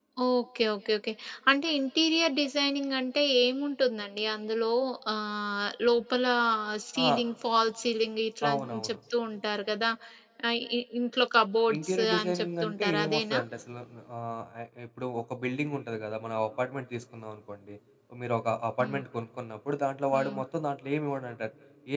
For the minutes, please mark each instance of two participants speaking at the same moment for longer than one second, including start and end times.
11.8-13.4

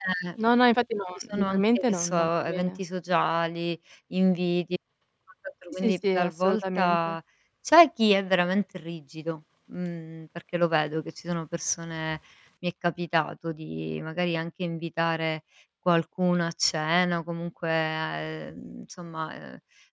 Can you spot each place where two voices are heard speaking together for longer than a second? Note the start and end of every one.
1.3-2.8, 5.8-7.2

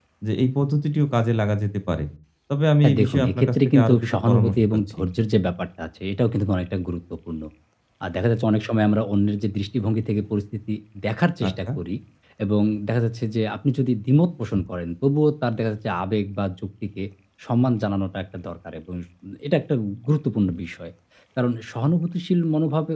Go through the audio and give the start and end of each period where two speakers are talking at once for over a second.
2.8-5.0

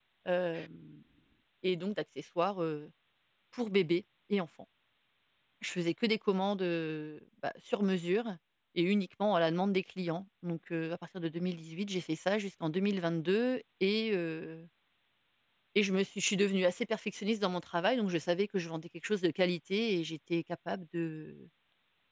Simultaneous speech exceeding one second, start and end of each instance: none

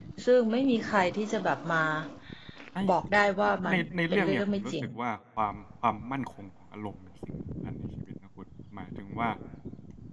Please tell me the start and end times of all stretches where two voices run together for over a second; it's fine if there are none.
3.7-5.0

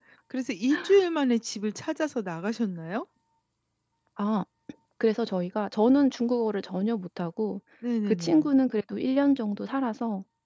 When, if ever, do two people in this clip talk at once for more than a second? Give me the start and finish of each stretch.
none

